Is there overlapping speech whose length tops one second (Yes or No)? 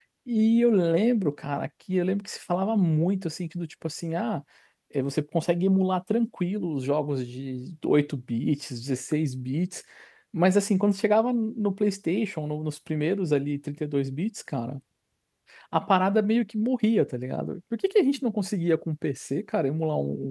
No